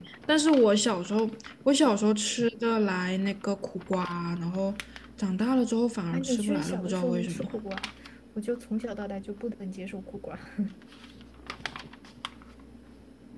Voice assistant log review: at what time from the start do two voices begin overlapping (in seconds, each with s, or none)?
6.1 s